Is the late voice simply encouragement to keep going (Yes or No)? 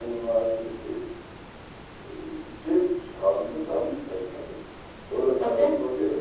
Yes